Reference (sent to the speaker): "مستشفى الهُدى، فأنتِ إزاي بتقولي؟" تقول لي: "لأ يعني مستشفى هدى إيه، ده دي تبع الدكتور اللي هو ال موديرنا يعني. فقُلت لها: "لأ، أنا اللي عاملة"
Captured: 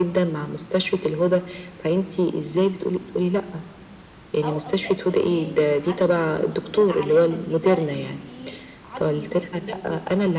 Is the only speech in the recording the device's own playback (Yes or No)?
No